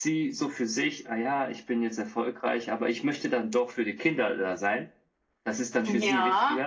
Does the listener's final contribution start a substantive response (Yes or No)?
Yes